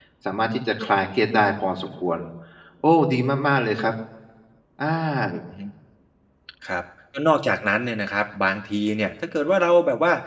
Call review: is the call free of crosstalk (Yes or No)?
Yes